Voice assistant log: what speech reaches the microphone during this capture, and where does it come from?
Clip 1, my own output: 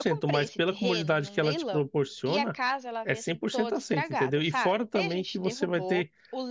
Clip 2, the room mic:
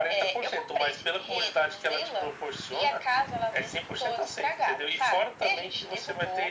echo only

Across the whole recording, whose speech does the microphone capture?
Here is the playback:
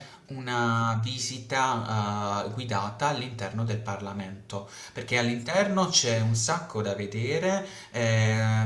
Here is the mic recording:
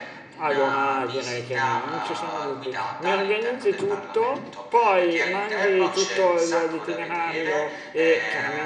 both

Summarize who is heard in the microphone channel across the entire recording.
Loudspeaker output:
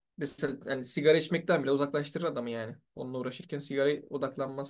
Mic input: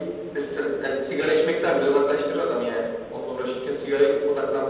echo only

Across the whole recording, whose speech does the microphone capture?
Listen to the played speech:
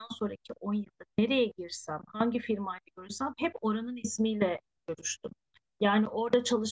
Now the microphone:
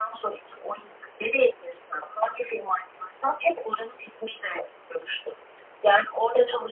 echo only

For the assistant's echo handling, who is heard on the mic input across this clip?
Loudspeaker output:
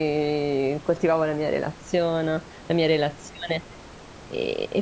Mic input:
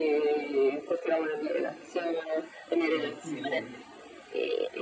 both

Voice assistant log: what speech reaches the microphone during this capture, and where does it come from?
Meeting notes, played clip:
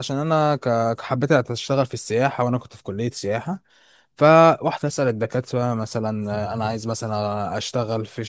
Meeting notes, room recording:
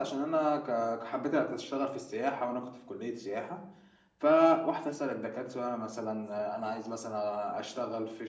echo only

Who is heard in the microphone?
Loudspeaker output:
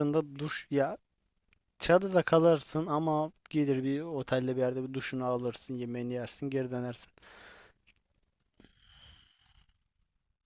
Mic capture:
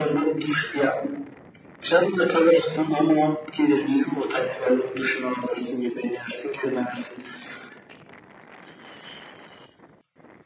echo only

